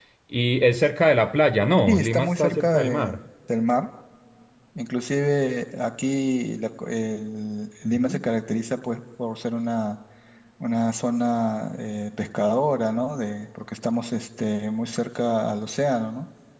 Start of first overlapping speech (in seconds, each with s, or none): 1.9 s